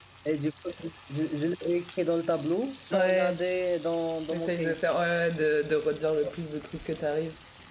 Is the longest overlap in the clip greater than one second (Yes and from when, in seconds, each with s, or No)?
No